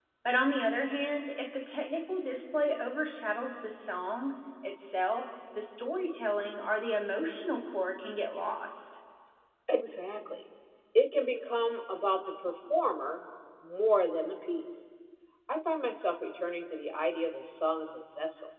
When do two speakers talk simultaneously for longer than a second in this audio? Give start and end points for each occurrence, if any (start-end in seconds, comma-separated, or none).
none